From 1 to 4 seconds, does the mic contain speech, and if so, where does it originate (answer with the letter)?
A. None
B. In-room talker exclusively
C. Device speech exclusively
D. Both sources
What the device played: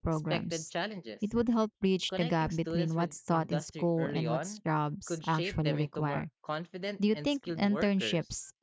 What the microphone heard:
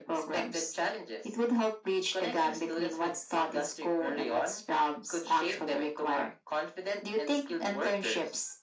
C